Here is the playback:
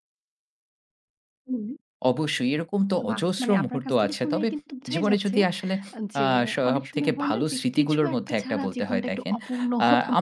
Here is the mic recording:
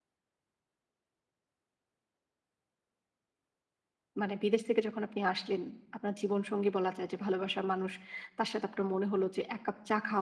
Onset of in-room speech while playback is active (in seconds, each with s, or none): 4.2 s